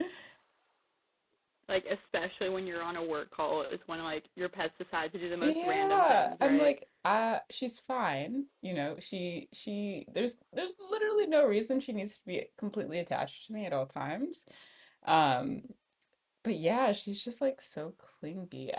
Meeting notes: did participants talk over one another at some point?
Yes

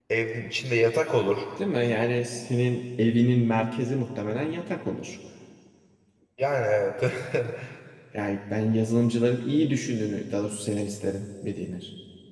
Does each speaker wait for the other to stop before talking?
Yes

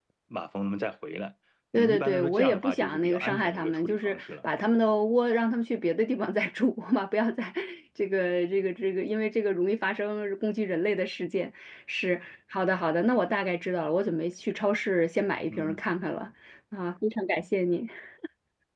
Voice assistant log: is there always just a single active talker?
No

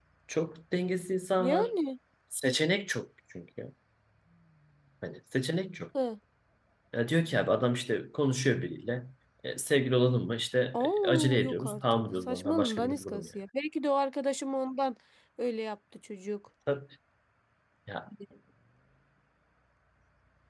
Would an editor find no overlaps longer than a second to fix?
No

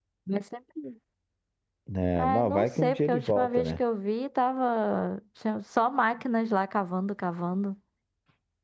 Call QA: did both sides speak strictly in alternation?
No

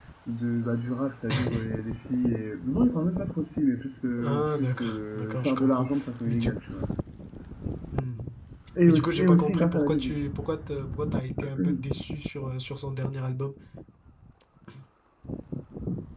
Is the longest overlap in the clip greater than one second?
Yes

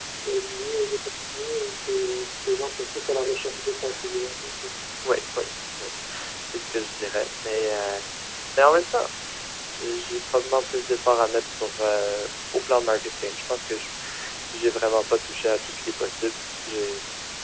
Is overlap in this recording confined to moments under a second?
Yes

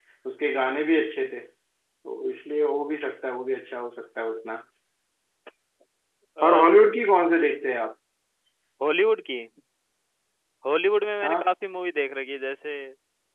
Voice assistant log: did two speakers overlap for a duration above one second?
No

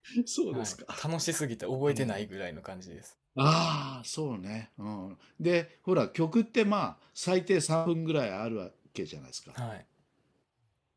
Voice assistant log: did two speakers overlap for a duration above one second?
No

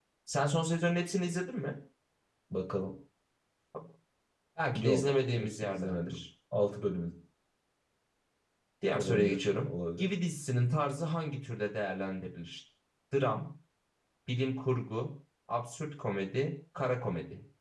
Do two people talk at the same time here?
Yes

